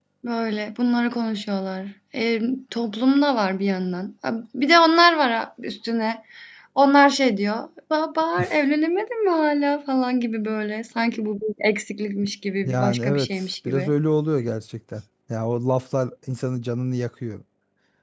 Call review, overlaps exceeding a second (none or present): present